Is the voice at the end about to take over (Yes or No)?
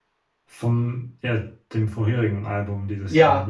Yes